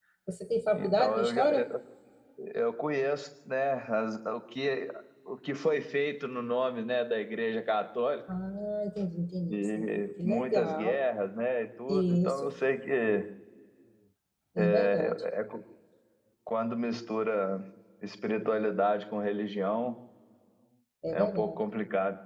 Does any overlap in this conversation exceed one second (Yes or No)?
Yes